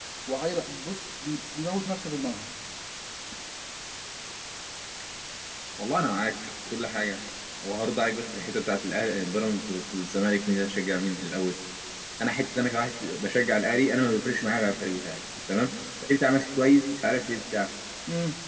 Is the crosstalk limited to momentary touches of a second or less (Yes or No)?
Yes